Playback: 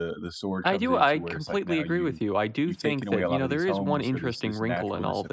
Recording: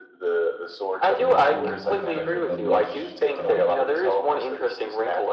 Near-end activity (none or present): present